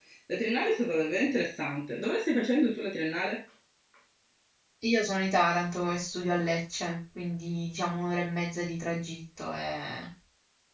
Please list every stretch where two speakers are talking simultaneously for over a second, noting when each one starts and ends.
none

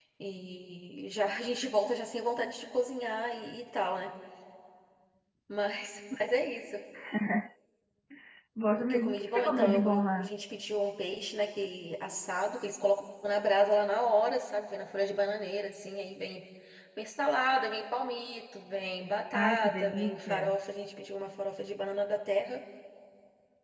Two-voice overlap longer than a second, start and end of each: 8.8-10.3, 19.3-20.6

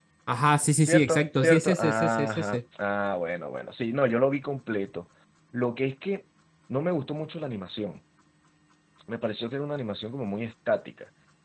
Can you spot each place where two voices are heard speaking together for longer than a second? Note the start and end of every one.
0.8-2.6

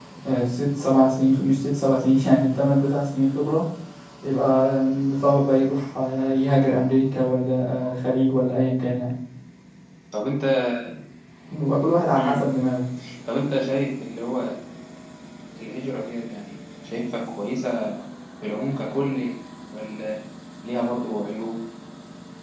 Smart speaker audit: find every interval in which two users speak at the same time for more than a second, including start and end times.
none

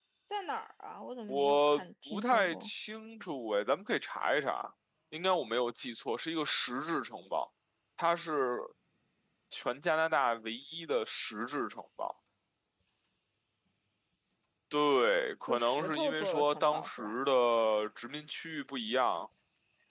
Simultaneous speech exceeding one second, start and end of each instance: 1.3-2.7, 15.5-17.1

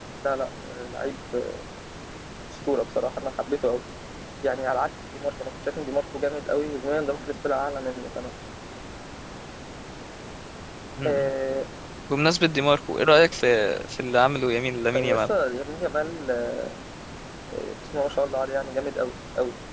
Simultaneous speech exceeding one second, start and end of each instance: none

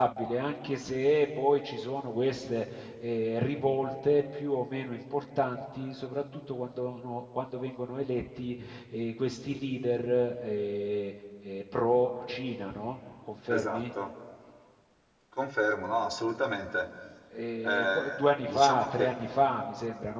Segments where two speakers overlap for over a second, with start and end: 17.6-19.1

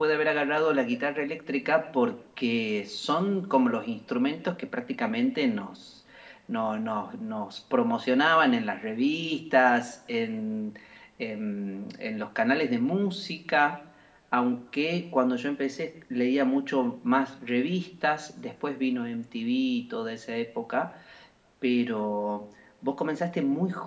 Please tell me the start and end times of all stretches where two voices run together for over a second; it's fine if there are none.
none

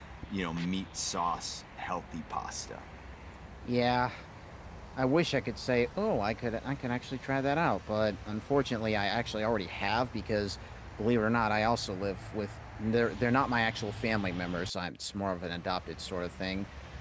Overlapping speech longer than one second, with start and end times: none

